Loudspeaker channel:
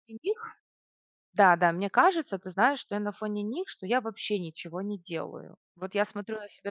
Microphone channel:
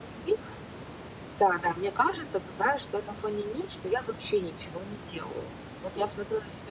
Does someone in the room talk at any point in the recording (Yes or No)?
No